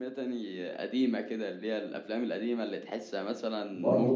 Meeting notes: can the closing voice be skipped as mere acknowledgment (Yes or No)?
No